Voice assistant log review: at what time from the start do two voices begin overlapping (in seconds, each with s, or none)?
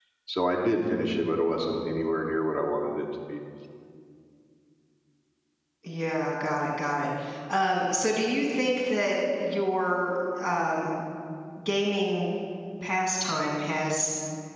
none